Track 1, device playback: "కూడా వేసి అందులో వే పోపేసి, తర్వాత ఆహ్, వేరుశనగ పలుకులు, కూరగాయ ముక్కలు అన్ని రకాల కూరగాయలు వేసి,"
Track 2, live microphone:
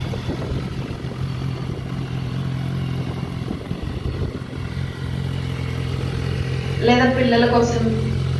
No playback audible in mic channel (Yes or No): Yes